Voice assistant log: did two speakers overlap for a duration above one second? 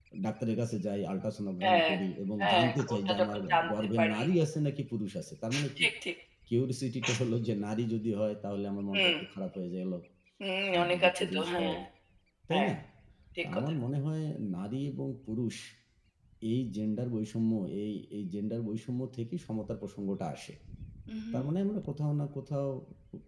Yes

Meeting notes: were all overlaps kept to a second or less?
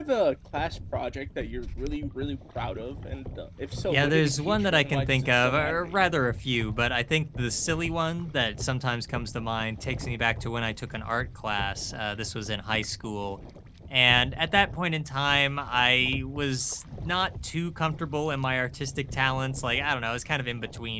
No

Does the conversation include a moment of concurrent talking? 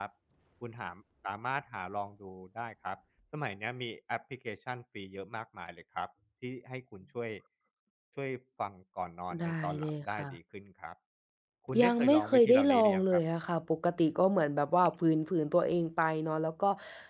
Yes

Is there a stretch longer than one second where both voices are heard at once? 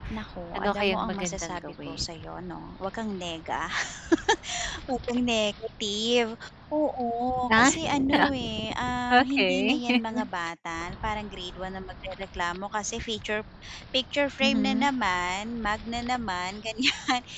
Yes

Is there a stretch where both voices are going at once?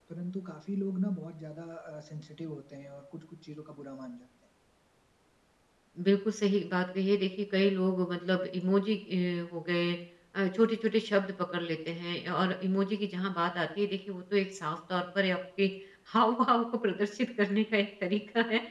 No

